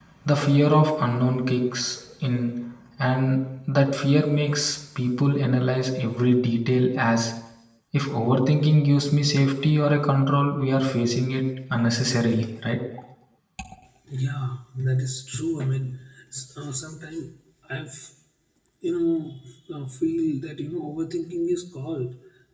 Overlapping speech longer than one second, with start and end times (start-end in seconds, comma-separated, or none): none